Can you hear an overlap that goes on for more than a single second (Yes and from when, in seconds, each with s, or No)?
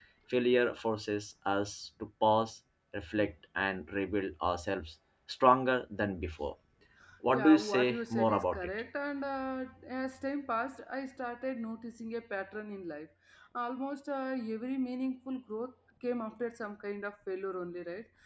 Yes, from 7.3 s